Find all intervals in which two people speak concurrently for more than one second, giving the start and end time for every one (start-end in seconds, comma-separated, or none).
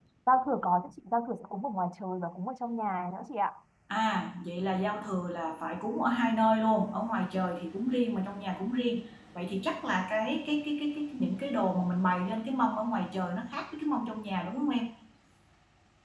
none